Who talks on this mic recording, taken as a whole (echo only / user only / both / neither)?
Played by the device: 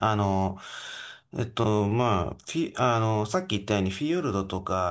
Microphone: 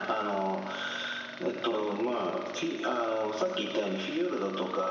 echo only